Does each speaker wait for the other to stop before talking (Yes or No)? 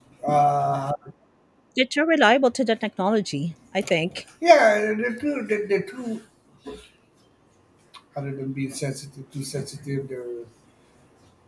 Yes